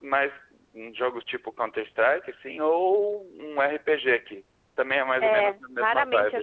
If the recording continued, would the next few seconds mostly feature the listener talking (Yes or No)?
Yes